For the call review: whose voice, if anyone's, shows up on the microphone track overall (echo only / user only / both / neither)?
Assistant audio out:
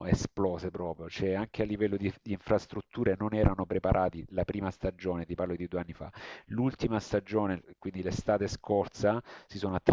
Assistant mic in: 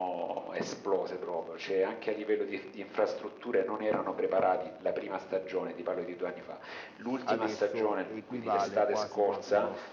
both